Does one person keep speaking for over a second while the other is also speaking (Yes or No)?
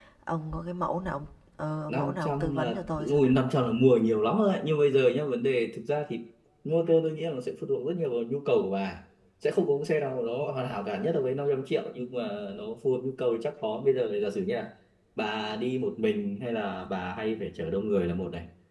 Yes